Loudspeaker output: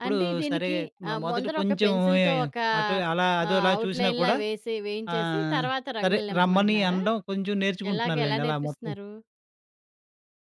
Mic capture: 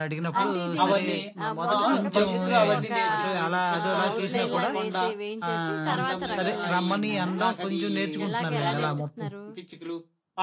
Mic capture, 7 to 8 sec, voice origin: both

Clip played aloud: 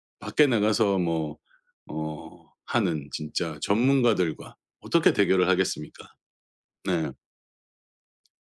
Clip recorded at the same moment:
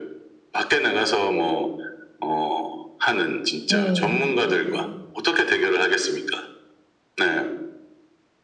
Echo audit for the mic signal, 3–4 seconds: both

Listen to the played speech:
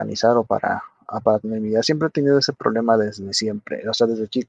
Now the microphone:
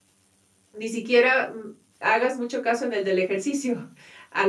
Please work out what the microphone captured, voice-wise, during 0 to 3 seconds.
user only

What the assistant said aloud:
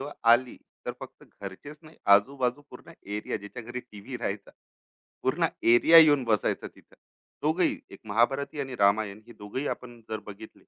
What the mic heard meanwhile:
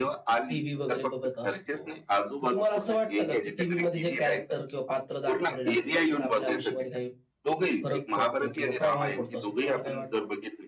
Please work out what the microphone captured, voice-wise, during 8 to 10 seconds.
both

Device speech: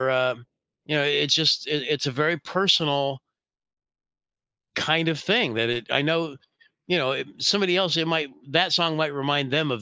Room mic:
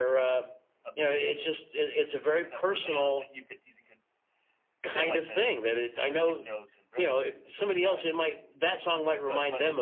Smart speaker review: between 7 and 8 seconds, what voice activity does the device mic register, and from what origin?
both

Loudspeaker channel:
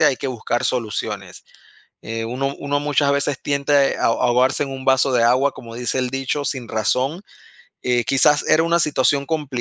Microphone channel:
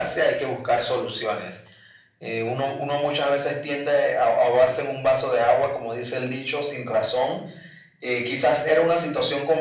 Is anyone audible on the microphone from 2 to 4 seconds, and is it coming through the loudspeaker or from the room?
echo only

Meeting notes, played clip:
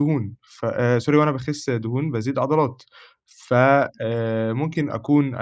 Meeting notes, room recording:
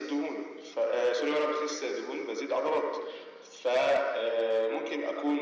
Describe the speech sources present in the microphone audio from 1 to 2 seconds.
echo only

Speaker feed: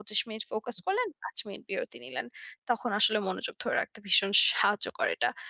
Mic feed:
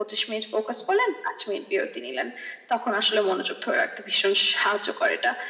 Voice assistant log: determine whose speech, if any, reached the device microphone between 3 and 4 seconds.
echo only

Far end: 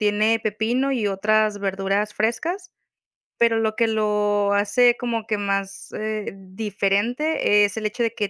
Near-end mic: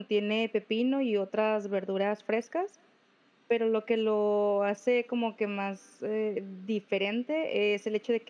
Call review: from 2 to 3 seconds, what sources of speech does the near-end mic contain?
echo only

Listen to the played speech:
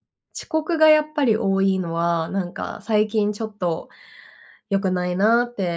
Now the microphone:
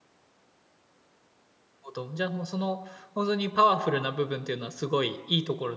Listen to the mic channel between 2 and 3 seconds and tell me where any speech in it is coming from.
user only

